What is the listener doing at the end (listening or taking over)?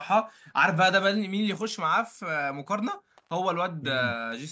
listening